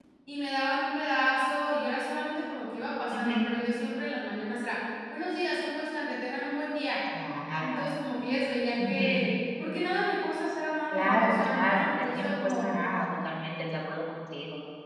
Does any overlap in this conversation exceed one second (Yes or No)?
Yes